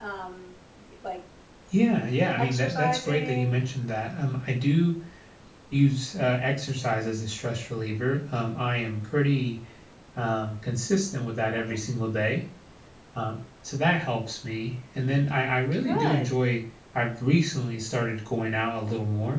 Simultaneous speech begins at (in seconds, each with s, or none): 2.4 s